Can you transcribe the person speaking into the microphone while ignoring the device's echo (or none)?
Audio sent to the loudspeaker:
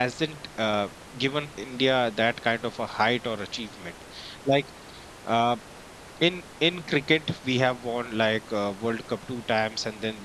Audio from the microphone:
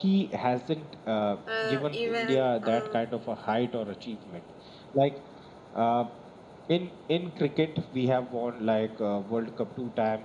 uh, even uh,